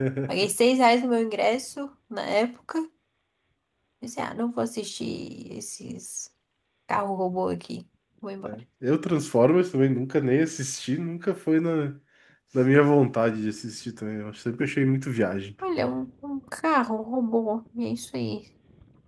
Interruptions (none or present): none